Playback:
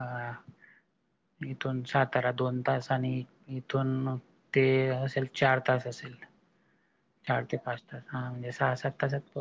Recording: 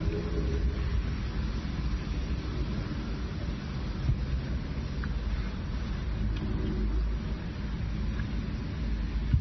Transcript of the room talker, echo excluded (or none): none